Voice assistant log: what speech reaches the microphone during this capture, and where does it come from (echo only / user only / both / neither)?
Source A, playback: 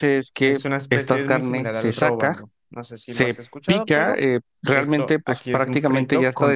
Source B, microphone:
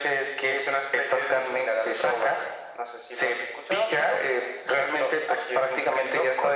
echo only